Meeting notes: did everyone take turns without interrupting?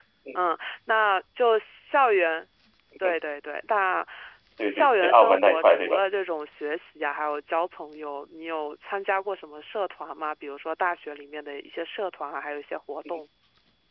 No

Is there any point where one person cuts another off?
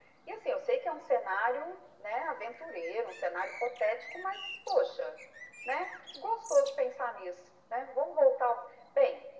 No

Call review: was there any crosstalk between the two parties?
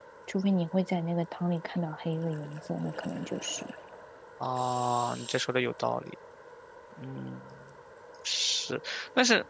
No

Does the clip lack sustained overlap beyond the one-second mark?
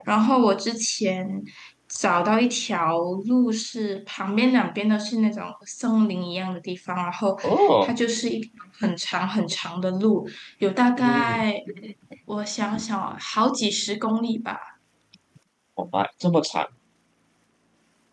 Yes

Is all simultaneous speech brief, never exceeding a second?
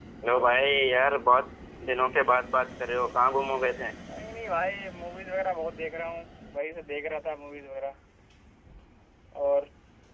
Yes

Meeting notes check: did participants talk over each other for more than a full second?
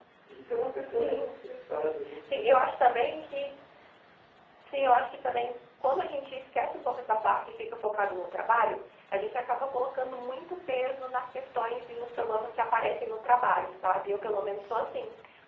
No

